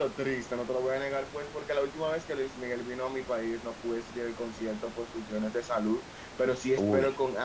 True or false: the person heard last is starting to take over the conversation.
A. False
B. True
A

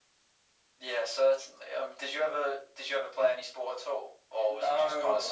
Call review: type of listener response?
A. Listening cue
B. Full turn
B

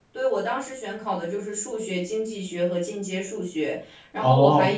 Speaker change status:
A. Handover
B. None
B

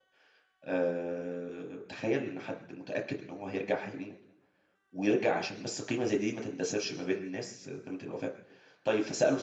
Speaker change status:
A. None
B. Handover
A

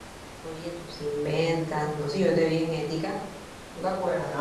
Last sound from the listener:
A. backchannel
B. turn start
B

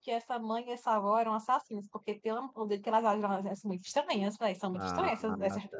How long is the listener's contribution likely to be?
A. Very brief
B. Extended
B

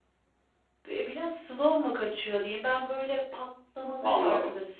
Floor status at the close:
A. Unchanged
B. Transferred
A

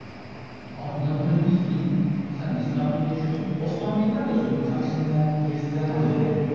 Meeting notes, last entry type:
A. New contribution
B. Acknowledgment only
B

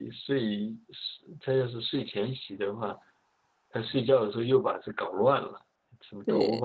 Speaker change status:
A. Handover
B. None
A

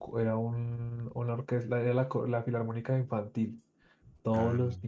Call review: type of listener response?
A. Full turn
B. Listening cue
B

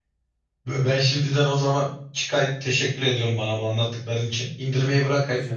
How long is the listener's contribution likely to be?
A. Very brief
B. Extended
A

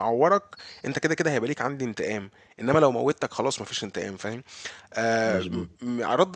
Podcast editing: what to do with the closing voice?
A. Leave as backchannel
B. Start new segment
A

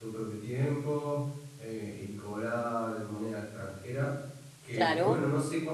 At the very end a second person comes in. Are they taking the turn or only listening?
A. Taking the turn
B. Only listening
B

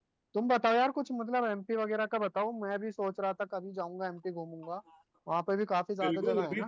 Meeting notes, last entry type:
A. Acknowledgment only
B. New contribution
B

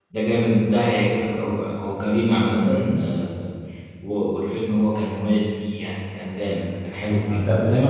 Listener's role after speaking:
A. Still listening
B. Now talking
B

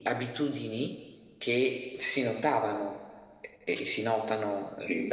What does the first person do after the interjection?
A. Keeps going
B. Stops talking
A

